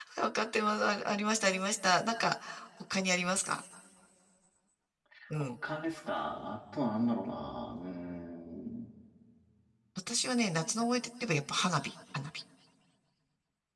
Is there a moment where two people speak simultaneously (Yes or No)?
No